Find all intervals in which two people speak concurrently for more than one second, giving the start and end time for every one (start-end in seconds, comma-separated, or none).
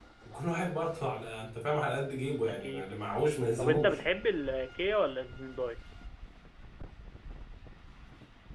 none